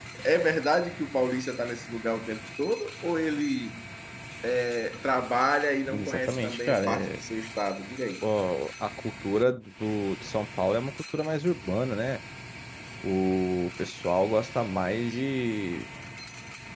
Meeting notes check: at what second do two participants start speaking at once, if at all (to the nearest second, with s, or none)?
6 s